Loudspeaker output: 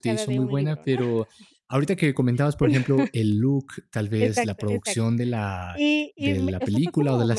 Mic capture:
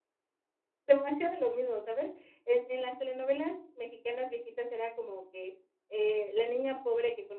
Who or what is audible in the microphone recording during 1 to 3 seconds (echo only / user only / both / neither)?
user only